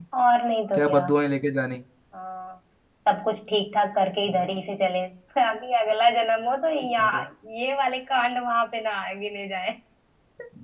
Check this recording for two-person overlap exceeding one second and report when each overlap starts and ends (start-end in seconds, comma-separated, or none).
none